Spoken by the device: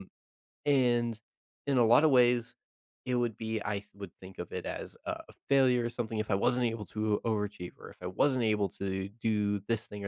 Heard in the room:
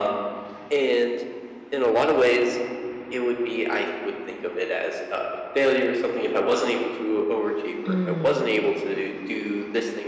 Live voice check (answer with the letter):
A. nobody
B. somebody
B